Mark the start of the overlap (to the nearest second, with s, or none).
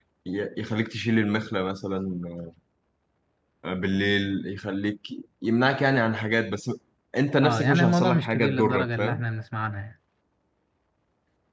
7 s